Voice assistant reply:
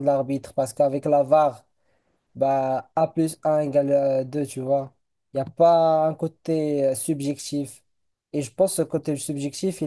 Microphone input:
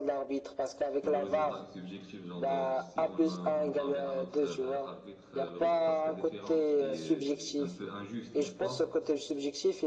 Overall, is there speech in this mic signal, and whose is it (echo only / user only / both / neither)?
both